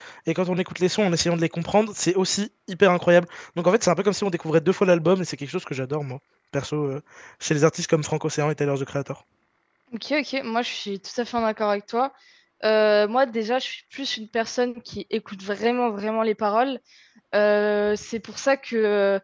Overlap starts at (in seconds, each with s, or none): none